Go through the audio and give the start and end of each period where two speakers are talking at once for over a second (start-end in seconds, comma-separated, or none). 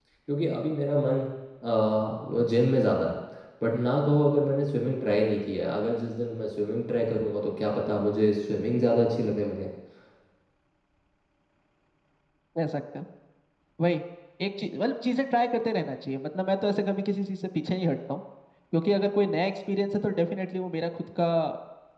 none